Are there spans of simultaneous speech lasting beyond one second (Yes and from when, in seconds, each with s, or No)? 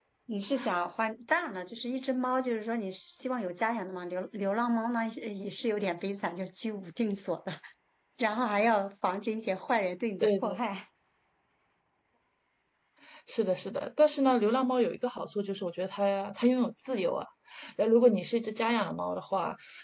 No